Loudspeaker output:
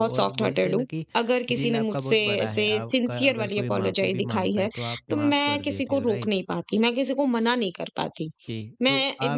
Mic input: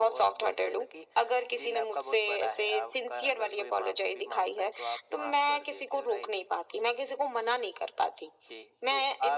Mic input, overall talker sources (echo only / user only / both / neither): echo only